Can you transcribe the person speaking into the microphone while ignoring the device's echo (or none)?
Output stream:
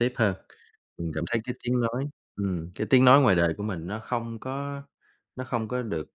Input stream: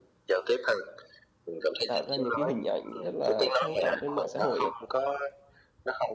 tạo ra những cái hình ảnh rất là sang trọng trên mạng xã hội ấy,